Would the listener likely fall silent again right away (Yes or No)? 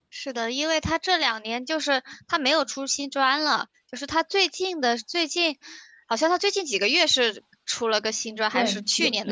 No